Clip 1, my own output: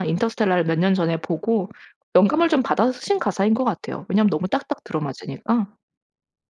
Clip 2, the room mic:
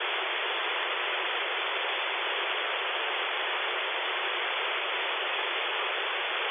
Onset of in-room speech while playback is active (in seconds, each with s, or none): none